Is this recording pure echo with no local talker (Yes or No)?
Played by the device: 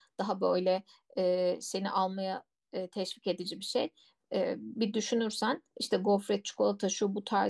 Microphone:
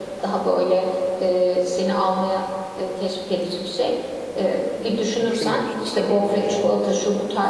No